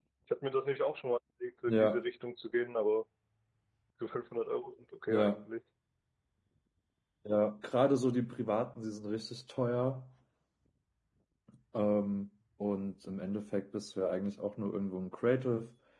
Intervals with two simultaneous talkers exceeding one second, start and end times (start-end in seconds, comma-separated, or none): none